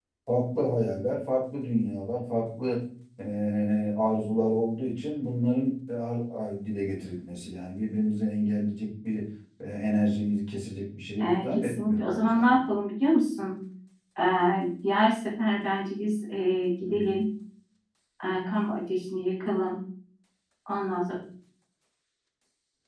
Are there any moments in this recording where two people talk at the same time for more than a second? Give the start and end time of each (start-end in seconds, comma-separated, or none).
11.2-12.6